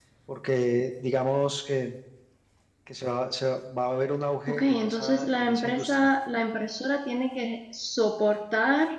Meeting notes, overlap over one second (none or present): present